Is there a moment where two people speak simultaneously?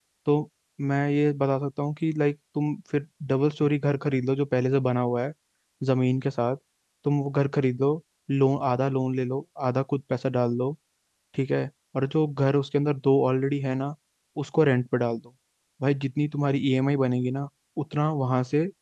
No

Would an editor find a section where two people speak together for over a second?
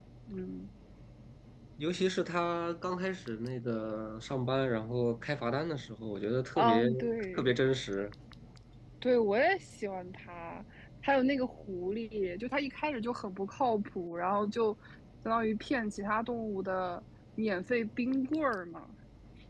No

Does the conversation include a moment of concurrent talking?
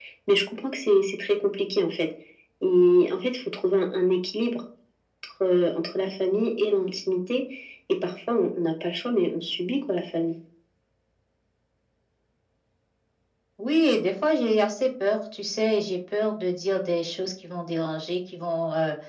No

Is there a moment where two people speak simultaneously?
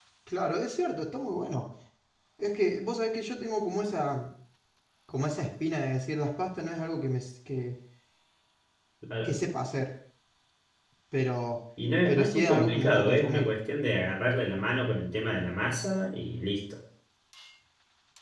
Yes, from 12.1 s

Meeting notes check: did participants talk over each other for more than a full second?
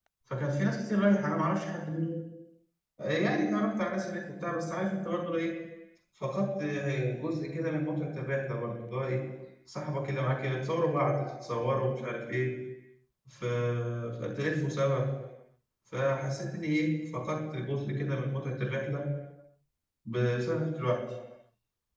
No

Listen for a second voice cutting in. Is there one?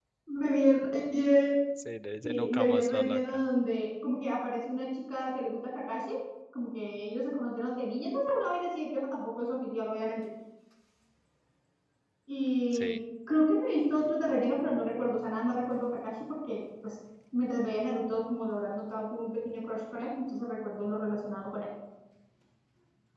Yes, from 2.2 s

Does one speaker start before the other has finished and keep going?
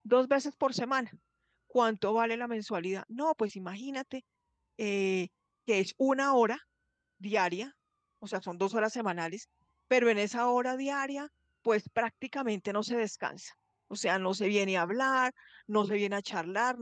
No

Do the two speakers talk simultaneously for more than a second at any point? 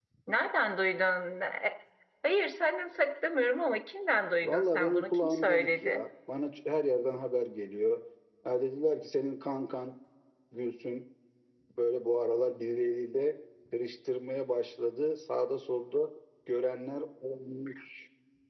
Yes, from 4.4 s

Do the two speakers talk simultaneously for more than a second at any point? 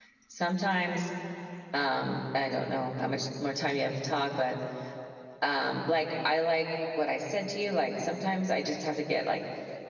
No

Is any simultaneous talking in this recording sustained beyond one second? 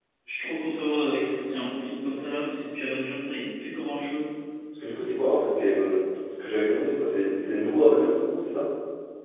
No

